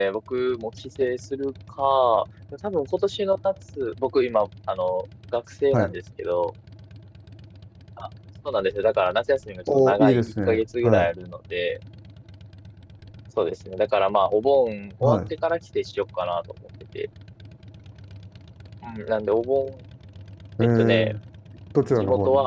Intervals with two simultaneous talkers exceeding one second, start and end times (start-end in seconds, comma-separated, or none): 9.7-11.1